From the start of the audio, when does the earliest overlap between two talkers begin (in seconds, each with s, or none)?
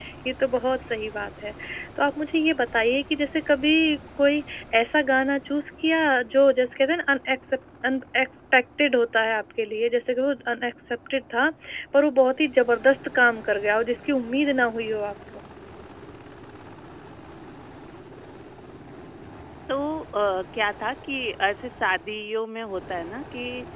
none